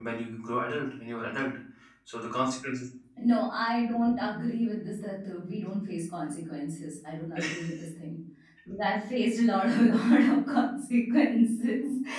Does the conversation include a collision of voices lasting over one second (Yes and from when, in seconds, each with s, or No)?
No